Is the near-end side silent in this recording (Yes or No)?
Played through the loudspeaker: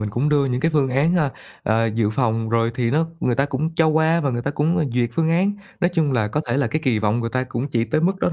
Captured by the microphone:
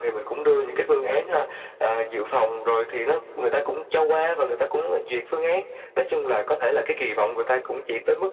Yes